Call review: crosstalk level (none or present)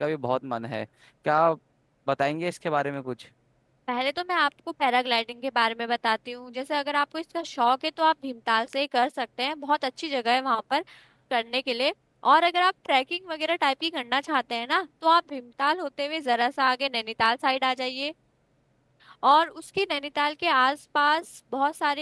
none